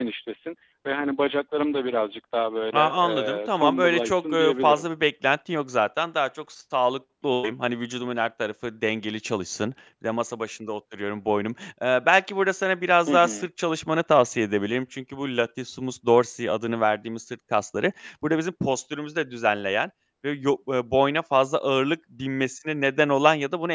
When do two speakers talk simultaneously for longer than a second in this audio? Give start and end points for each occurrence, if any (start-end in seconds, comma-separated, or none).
2.7-4.9